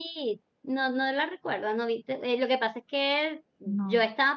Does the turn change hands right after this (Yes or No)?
No